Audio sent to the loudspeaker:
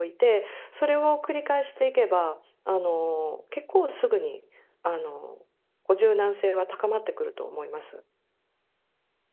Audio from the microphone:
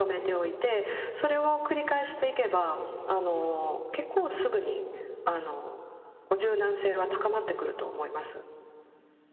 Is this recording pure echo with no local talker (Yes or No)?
Yes